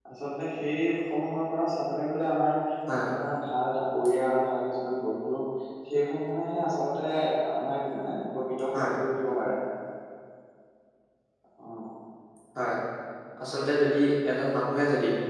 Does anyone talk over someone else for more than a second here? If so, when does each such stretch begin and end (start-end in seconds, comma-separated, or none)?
none